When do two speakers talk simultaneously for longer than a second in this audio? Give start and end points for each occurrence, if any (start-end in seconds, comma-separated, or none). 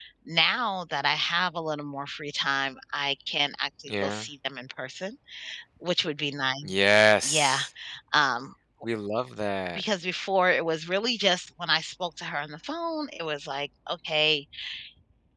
none